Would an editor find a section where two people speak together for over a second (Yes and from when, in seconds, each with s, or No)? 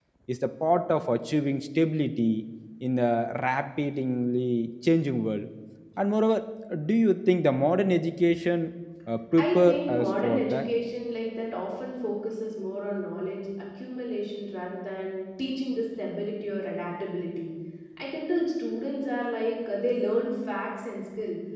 Yes, from 9.3 s